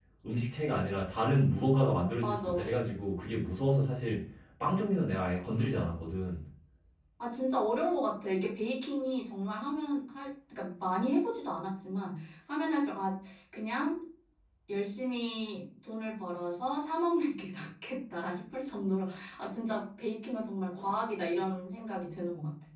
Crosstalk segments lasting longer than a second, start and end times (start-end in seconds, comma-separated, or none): none